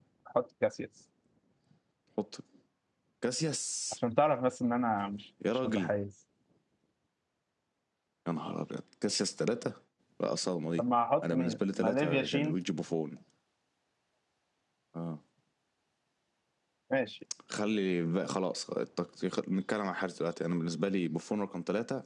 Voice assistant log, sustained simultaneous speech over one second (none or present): present